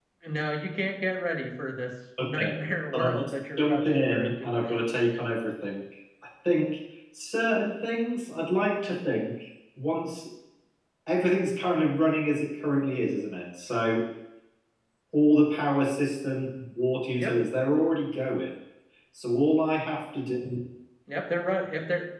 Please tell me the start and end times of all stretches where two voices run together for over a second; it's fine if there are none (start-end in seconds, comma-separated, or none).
2.9-4.5